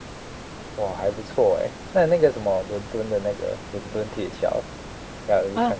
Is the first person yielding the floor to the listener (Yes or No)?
Yes